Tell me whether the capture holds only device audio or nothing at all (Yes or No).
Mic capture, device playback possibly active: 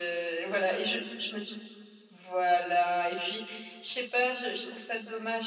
Yes